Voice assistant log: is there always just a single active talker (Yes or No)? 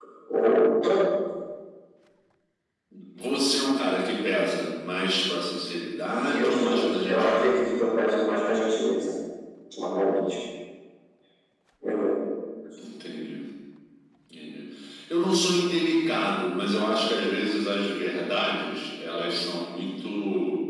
No